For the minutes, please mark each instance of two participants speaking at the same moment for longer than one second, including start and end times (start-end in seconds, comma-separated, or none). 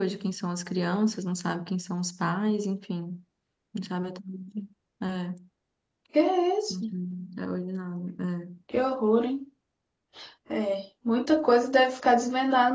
none